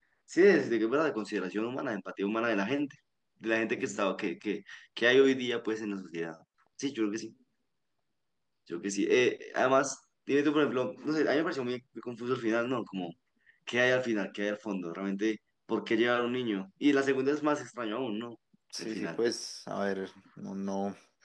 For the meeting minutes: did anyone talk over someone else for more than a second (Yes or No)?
No